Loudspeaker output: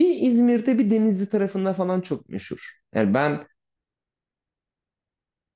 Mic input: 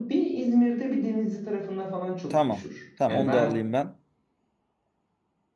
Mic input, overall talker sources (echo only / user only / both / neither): both